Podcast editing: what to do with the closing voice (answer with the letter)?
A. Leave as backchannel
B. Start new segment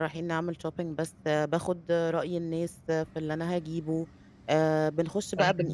A